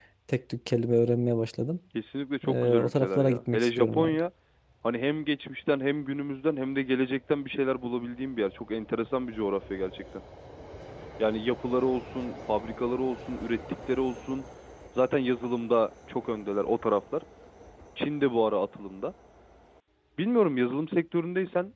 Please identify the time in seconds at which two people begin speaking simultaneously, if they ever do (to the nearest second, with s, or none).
2 s